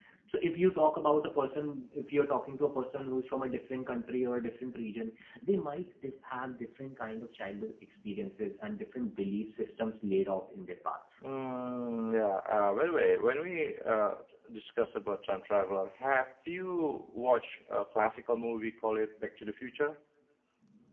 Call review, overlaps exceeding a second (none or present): none